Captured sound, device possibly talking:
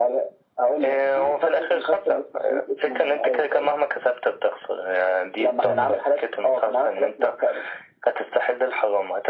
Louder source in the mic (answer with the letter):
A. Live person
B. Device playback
B